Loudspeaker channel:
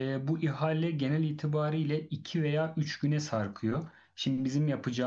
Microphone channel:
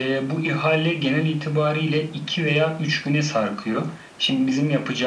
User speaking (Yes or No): No